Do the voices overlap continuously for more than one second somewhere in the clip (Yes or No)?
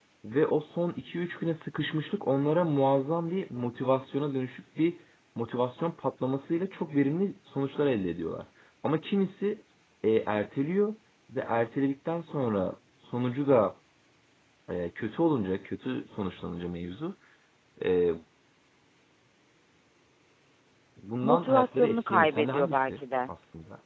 Yes